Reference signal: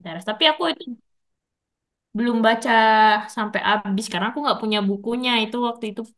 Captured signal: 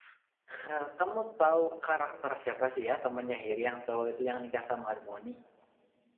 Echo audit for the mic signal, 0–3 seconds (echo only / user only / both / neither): user only